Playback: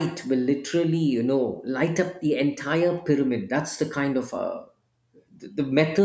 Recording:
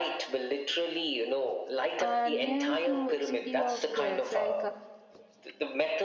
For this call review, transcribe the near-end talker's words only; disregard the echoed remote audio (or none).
uh, near to city of gates like uh,